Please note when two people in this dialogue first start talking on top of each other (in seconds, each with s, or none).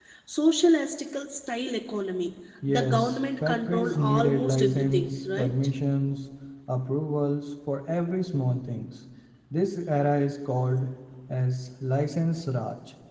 2.6 s